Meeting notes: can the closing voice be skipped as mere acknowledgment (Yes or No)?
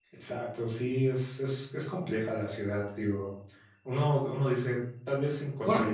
Yes